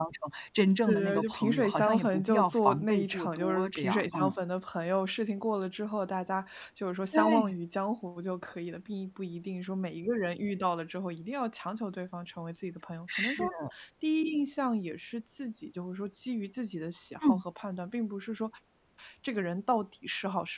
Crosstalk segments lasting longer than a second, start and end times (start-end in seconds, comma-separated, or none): 0.8-4.4